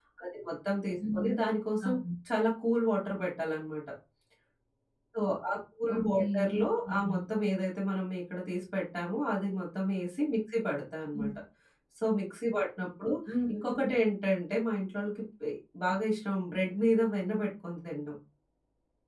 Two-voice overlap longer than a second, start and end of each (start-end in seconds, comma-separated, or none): 6.0-7.2